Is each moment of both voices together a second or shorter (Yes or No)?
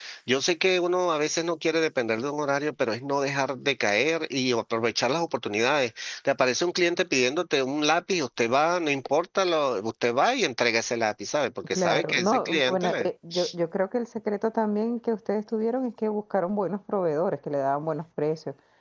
No